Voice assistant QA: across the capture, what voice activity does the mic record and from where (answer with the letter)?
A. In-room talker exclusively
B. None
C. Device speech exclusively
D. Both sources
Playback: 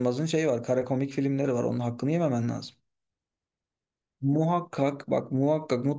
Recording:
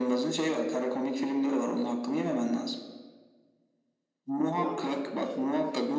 D